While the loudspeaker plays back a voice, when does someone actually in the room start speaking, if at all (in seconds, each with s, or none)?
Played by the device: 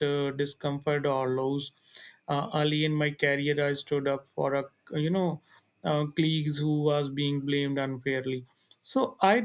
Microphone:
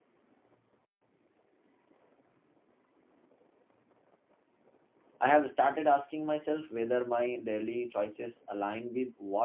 5.2 s